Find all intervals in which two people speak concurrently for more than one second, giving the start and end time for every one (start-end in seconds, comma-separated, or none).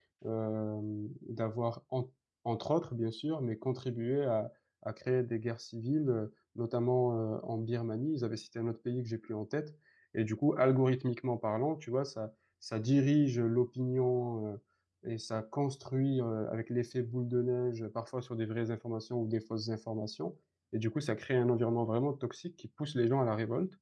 none